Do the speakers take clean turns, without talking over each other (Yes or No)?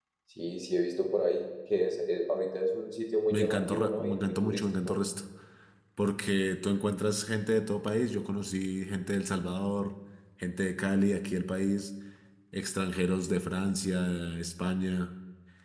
No